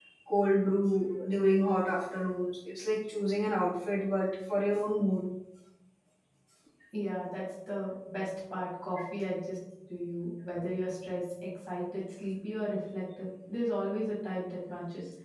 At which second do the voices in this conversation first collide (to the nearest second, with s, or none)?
none